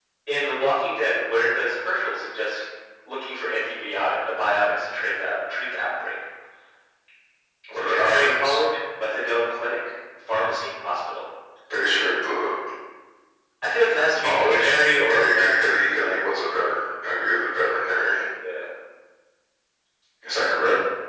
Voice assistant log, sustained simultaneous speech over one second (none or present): present